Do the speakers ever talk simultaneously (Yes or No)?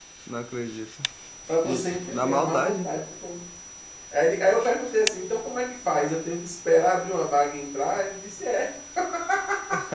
Yes